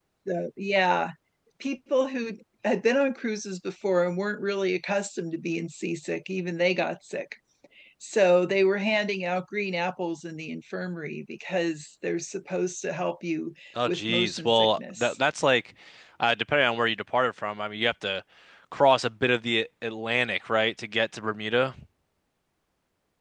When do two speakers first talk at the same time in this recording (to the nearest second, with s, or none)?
14 s